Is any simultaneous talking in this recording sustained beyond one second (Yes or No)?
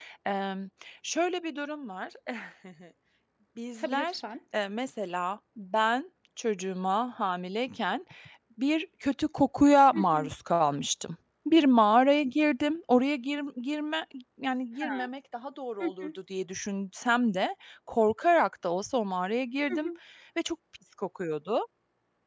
No